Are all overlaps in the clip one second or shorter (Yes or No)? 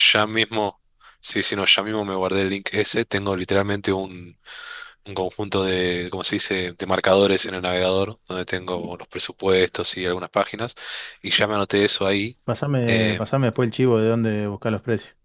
Yes